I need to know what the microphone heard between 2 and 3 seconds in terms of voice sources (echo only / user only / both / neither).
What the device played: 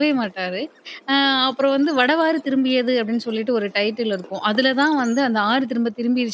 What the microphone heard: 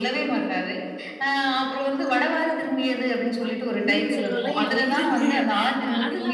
echo only